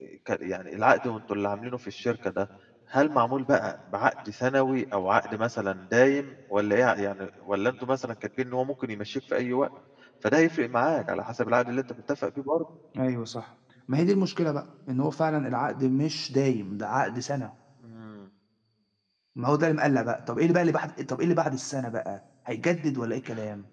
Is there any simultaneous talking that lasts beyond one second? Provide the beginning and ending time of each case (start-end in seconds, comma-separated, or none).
none